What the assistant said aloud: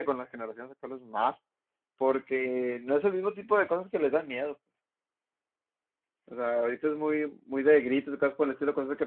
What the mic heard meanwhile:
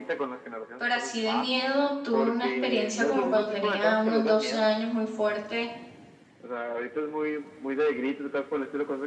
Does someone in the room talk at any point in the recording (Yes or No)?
Yes